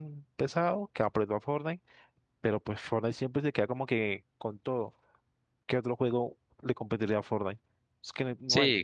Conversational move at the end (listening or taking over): taking over